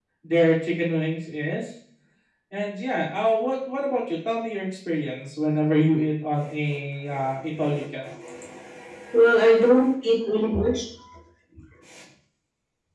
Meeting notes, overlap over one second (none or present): none